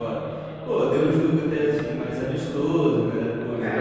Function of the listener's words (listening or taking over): taking over